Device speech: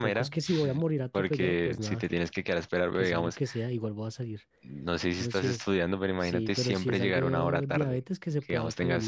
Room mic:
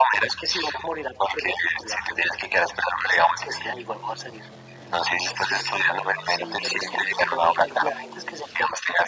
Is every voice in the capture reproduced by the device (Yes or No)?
Yes